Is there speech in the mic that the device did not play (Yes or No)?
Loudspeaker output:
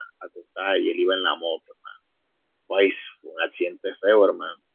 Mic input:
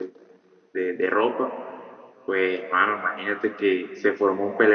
Yes